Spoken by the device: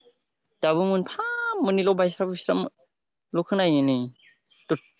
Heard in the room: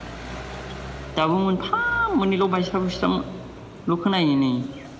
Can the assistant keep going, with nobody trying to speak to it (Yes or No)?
Yes